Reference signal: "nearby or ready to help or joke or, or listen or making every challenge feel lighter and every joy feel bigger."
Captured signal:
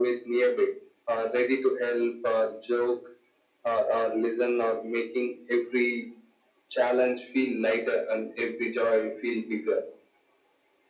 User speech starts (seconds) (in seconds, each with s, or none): none